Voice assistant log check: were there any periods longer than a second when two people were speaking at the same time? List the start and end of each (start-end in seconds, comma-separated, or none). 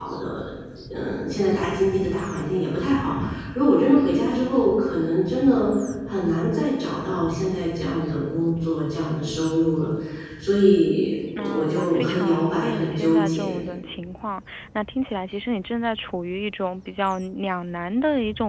11.4-13.6